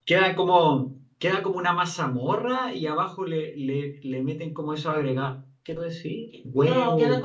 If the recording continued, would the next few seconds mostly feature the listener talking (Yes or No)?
Yes